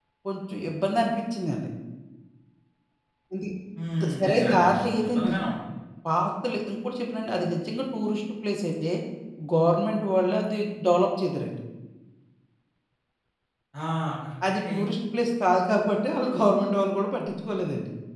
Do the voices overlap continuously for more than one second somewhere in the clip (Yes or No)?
Yes